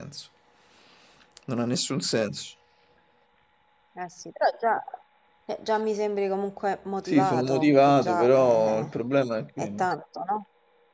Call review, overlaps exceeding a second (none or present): present